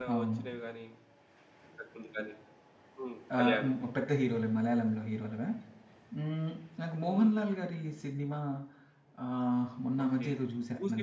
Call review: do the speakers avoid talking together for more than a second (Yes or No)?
Yes